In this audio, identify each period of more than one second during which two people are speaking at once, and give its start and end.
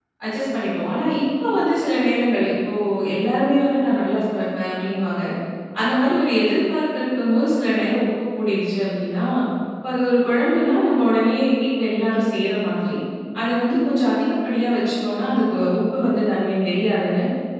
none

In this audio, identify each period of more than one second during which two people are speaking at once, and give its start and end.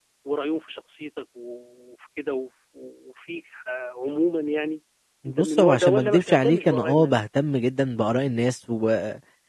5.2-7.2

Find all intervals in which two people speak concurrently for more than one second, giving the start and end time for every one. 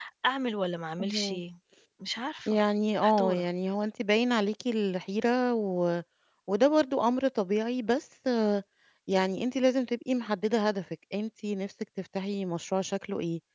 none

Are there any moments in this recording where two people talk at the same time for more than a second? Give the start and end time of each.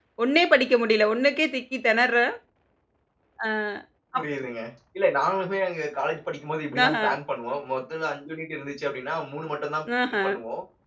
none

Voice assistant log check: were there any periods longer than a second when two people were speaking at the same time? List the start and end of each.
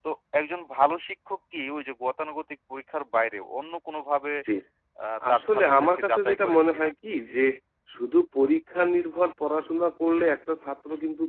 5.3-6.9

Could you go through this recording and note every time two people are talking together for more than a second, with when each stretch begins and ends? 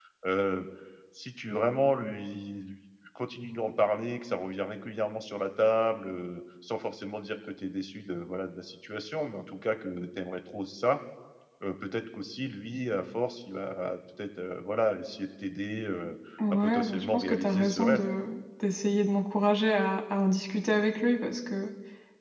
16.5-18.0

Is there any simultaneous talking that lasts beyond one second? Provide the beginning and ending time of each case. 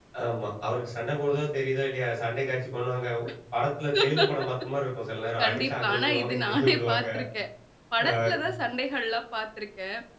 5.4-7.0

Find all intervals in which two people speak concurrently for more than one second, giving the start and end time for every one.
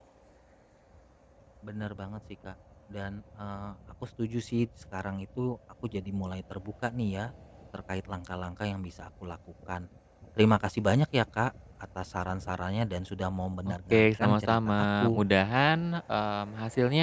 13.7-15.2

